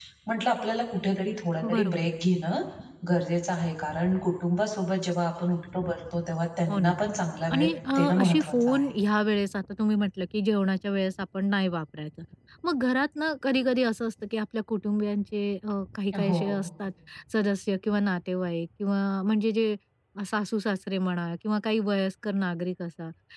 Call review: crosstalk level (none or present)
present